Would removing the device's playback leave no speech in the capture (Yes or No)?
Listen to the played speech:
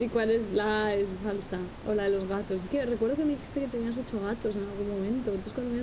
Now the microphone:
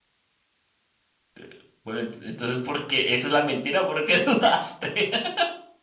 No